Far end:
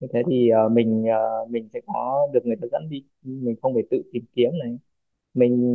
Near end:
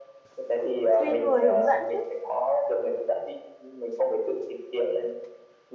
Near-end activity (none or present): present